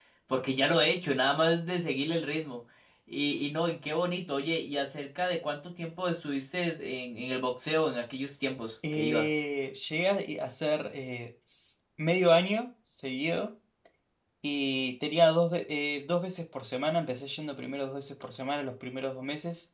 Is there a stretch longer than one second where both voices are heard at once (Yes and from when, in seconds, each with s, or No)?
No